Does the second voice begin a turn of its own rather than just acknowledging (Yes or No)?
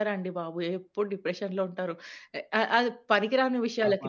Yes